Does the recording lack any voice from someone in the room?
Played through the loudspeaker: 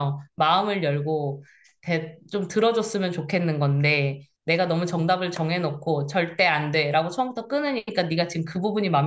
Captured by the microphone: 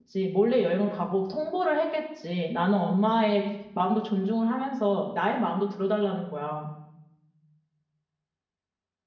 No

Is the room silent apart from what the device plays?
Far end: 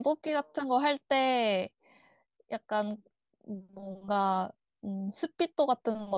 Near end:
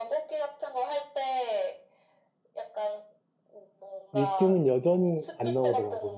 No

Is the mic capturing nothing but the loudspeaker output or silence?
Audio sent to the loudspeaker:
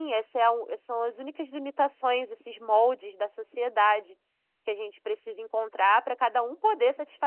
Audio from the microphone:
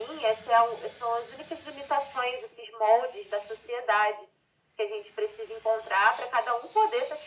Yes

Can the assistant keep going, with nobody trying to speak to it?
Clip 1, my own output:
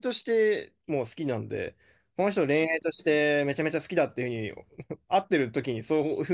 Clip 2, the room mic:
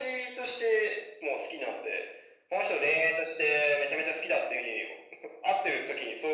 Yes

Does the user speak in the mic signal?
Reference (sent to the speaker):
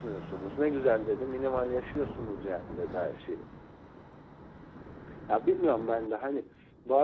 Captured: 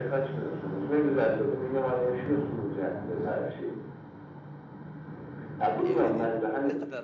Yes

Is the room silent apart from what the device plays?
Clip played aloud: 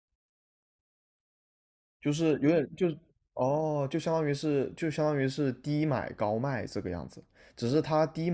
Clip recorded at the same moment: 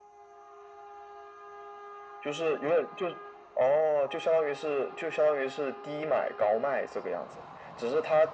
Yes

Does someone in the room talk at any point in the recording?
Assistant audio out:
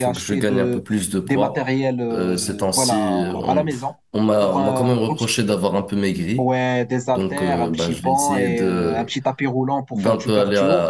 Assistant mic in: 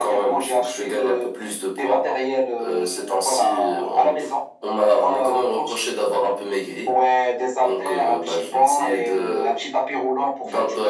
No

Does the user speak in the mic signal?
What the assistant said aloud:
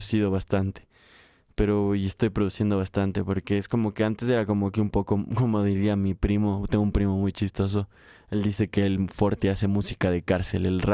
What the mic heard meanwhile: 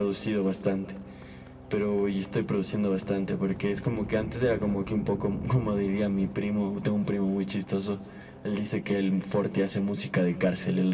No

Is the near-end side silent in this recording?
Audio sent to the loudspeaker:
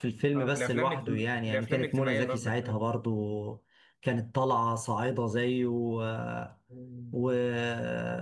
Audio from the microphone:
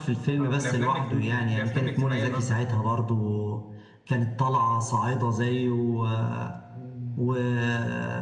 Yes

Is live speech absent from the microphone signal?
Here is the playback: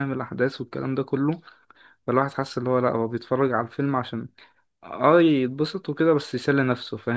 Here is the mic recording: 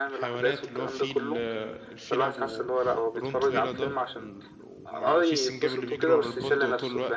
No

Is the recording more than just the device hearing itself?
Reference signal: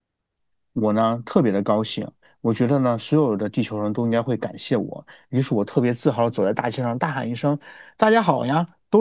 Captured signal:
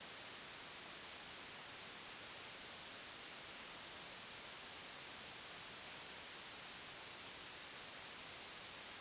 No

